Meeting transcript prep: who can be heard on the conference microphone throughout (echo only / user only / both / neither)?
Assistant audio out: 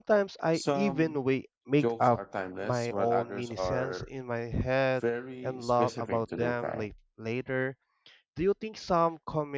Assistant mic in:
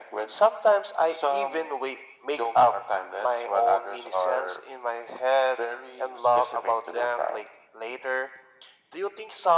echo only